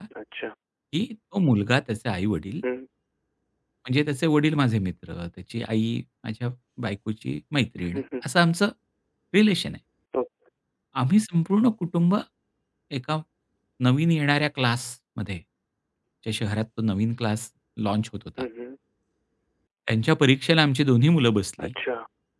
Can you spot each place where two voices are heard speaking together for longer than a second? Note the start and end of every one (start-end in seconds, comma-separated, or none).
none